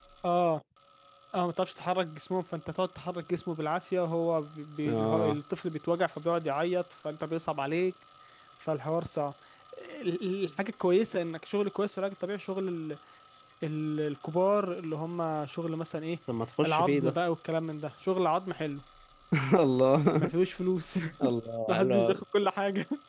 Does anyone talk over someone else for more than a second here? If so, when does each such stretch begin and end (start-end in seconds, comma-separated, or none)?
none